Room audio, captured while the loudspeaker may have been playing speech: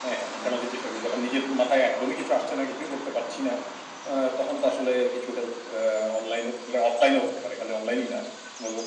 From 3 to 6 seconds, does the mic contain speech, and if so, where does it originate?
echo only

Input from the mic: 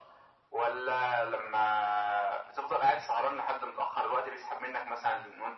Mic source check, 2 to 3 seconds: echo only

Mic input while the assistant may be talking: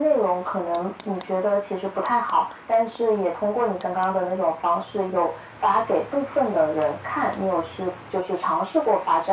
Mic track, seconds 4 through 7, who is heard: echo only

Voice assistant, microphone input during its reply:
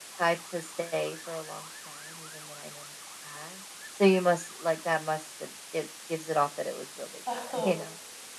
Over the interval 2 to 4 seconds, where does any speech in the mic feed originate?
echo only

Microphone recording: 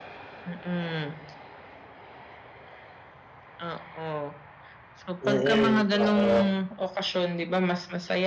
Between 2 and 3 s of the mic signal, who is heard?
neither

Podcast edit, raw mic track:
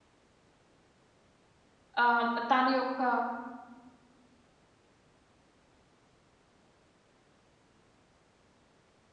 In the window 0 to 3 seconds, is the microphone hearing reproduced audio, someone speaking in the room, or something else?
user only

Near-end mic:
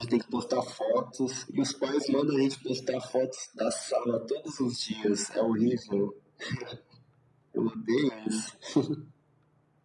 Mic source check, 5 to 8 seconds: echo only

